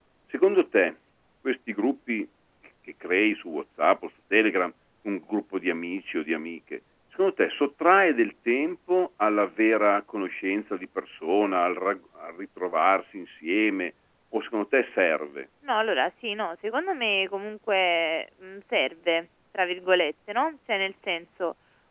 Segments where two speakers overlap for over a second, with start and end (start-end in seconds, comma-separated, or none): none